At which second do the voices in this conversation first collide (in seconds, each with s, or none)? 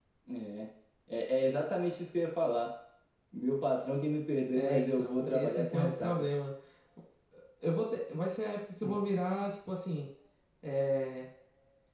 4.5 s